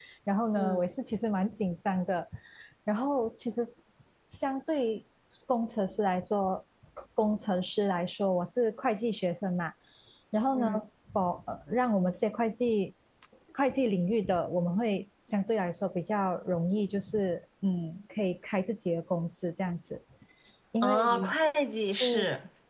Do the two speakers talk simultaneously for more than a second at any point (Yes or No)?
No